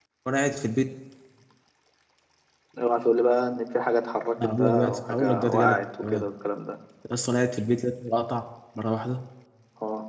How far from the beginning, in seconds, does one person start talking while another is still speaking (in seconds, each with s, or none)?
4.3 s